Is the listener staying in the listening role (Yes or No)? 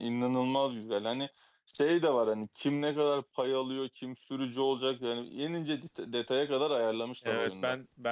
No